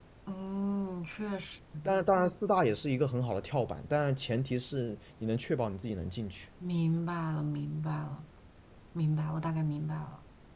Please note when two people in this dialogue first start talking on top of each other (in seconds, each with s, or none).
none